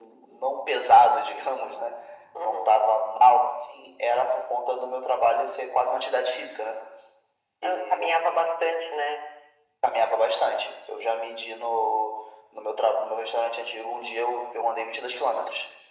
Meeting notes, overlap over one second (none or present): none